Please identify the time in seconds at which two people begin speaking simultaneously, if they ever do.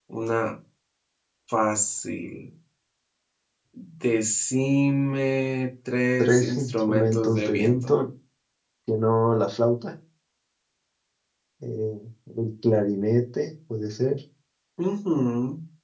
6.2 s

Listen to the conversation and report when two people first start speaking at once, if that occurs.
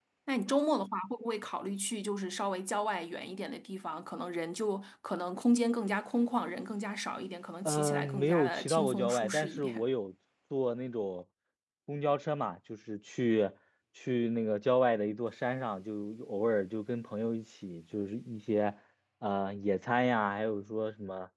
7.6 s

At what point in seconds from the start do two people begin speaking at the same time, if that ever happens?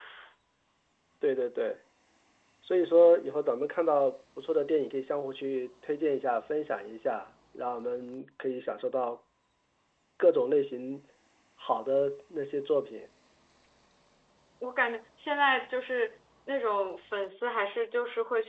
none

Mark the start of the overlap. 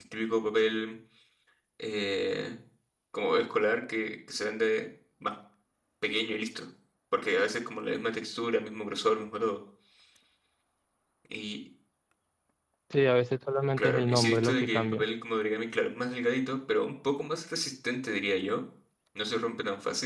13.8 s

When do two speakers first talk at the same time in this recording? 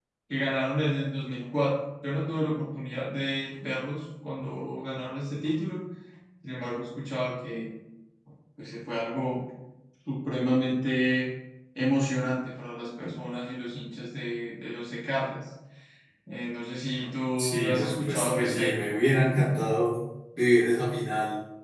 17.4 s

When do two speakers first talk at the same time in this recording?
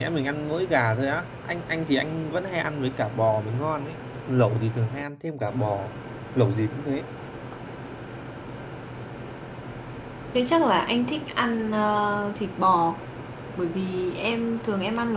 none

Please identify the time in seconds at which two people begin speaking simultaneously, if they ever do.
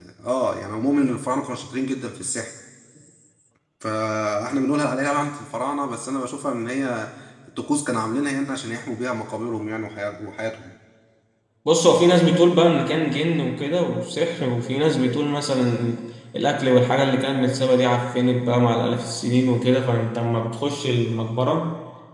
none

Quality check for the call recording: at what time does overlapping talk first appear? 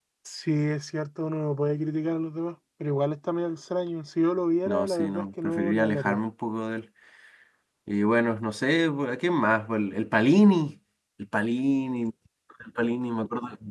4.7 s

